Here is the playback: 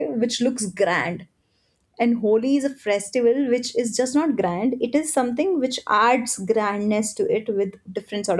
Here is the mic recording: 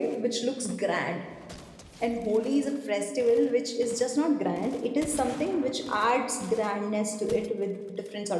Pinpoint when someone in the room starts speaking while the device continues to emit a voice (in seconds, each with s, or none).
none